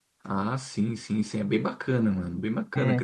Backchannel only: No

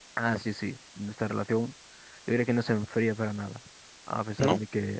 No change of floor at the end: Yes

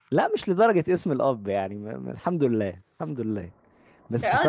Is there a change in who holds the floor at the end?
Yes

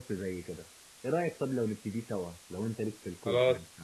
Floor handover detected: Yes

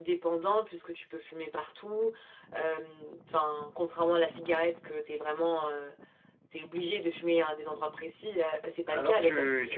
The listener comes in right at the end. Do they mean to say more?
Yes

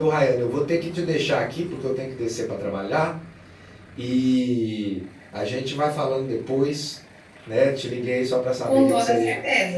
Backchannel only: No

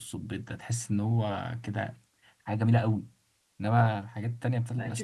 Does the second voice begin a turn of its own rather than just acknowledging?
Yes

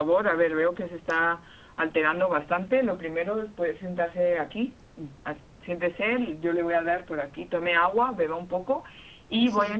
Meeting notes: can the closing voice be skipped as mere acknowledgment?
Yes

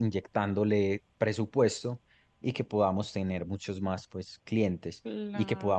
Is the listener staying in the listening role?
Yes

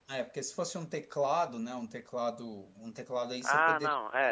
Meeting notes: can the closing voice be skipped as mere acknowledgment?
No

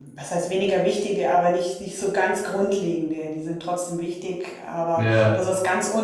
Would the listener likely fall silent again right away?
Yes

